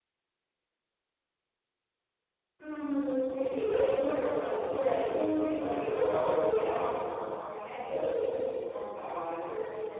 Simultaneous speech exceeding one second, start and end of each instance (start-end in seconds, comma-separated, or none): 5.3-6.8